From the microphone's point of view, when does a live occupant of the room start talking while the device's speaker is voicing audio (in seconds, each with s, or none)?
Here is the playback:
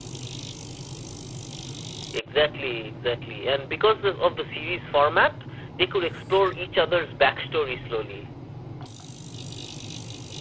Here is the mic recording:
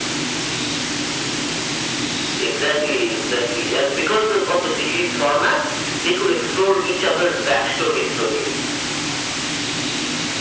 none